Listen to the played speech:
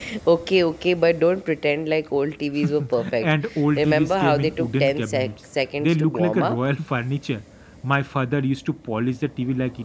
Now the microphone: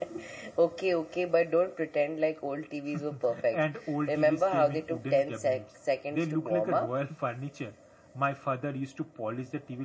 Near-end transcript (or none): none